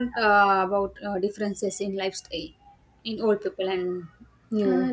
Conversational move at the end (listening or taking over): taking over